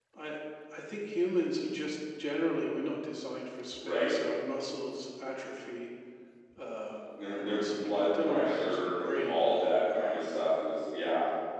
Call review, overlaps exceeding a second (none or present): present